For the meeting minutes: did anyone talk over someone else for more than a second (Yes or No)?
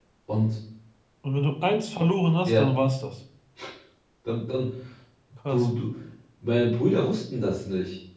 No